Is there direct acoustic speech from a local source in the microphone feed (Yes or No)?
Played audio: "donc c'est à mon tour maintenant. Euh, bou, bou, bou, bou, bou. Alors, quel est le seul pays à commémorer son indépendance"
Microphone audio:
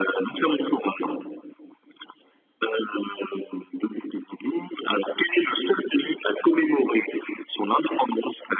No